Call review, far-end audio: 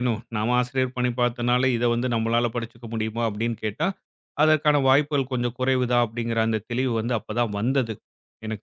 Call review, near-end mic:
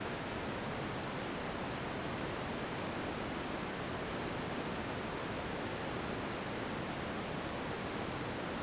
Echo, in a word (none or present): none